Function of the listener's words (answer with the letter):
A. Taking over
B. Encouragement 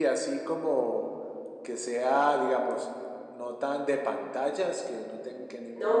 A